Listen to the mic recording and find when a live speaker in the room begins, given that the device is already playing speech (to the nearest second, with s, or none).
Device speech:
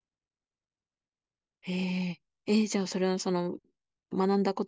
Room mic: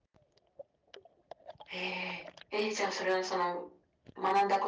none